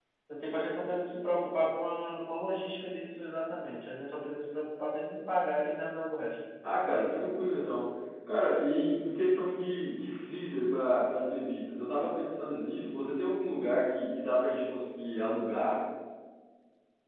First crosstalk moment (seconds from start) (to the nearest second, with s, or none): none